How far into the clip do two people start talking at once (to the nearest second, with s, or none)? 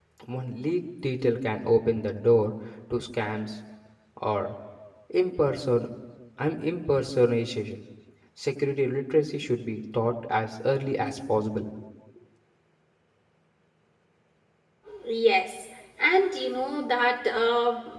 none